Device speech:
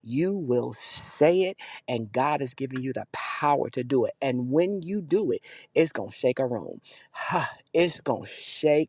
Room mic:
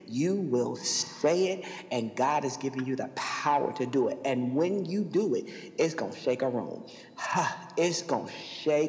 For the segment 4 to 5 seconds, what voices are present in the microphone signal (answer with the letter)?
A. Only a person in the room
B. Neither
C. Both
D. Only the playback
D